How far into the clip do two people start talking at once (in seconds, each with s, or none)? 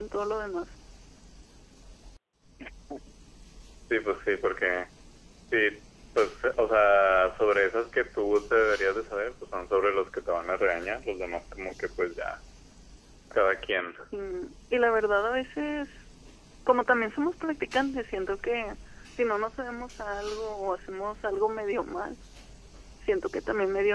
none